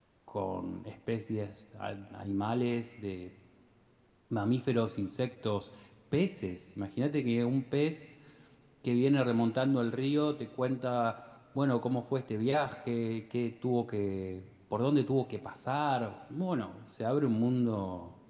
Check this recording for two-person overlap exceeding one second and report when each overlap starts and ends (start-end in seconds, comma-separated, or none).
none